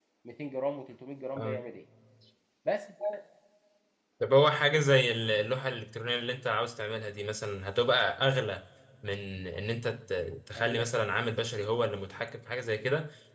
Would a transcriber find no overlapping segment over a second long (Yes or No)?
Yes